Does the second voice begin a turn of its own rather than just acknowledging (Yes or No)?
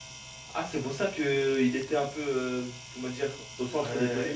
Yes